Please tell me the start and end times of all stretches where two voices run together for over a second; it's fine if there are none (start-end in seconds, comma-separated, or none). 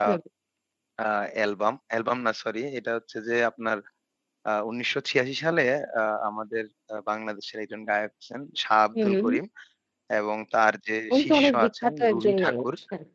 11.1-12.7